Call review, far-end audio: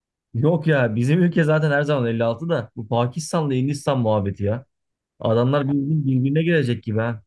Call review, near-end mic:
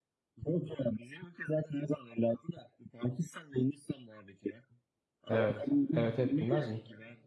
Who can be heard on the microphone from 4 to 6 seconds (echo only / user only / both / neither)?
both